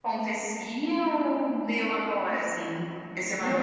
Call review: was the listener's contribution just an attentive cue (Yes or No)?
No